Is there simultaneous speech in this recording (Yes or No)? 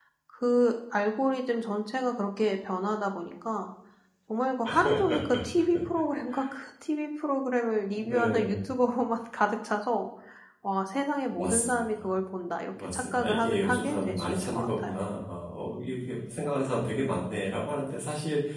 Yes